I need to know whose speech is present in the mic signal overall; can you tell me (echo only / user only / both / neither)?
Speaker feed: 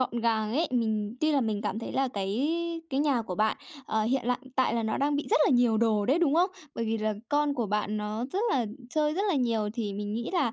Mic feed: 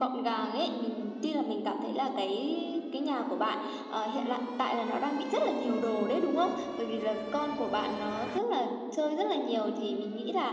echo only